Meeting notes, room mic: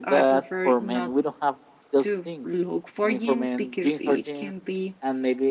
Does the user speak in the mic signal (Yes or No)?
Yes